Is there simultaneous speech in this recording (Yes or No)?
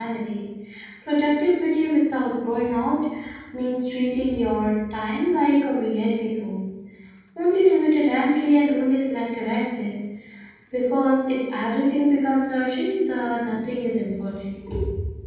No